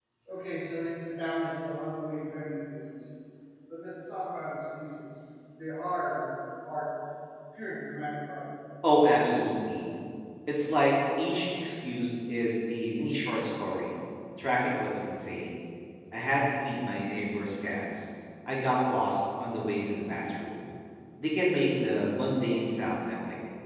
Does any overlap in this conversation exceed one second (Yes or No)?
No